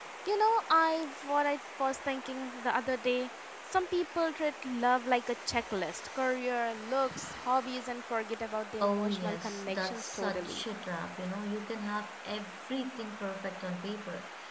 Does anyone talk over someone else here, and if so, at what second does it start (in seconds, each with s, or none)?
8.8 s